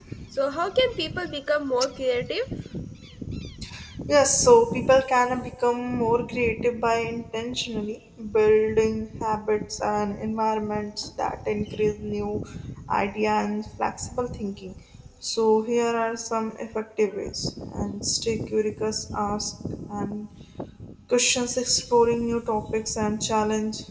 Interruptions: none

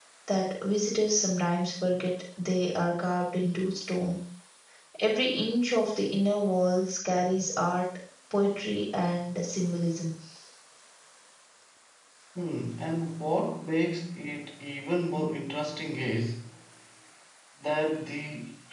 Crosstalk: none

